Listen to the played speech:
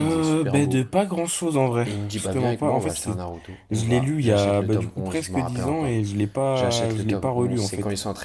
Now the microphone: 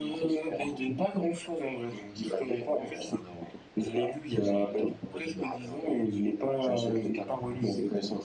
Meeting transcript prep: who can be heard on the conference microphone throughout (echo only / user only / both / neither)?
echo only